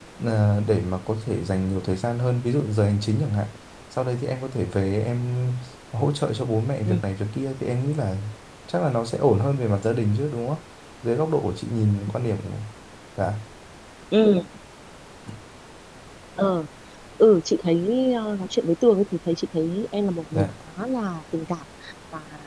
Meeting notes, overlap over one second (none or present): none